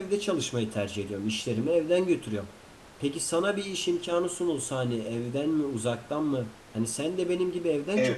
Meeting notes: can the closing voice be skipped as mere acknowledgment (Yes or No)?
No